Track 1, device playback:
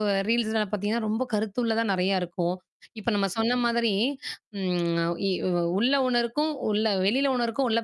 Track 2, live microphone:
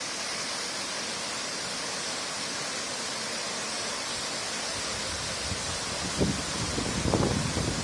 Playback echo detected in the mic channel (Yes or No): No